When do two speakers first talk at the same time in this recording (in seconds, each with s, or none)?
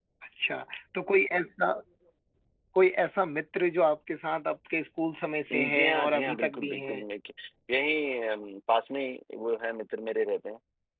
5.5 s